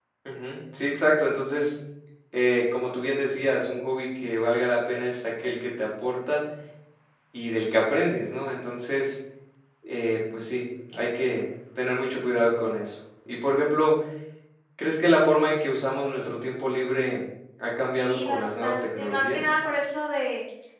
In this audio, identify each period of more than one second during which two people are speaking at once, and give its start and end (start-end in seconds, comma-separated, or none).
17.9-19.4